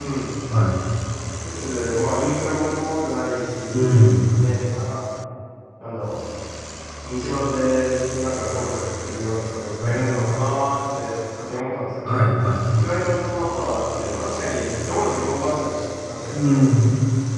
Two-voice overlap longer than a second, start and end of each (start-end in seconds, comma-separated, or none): none